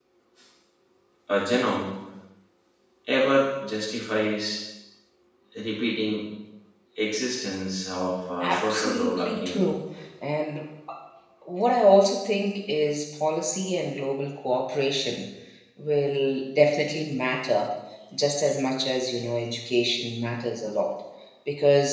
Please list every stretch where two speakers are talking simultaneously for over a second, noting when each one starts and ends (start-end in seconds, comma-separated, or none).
8.4-9.7